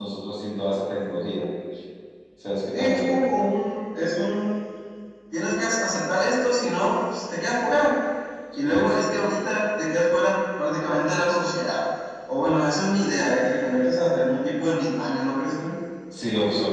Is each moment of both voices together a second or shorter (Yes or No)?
Yes